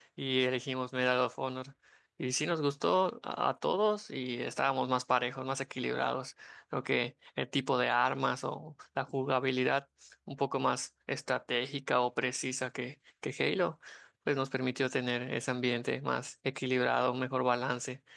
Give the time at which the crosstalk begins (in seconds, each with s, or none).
none